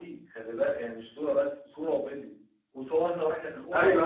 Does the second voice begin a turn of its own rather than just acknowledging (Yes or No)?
No